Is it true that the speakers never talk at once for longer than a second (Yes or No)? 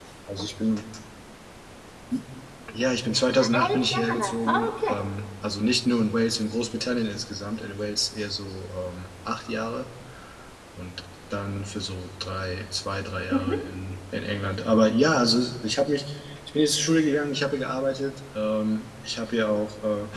No